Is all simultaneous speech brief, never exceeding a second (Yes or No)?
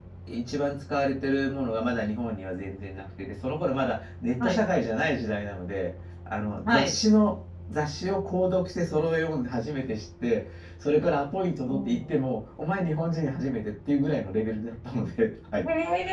Yes